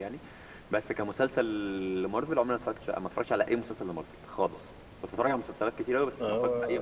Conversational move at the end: listening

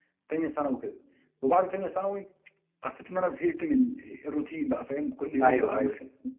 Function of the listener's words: listening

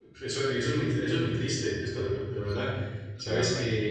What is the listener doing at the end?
listening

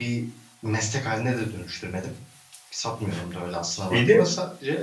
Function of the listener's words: listening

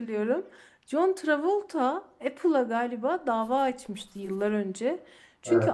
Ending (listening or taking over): listening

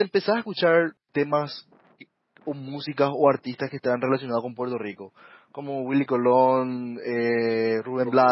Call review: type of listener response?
taking over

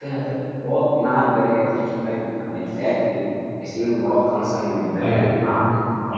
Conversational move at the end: listening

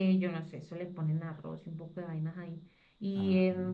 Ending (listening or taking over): listening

